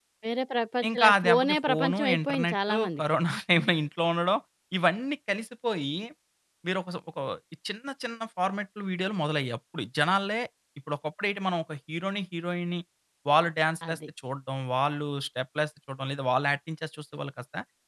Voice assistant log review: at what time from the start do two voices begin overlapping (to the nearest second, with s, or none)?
1 s